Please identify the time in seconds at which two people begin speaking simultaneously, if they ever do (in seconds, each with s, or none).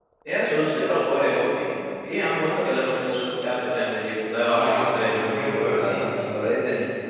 4.4 s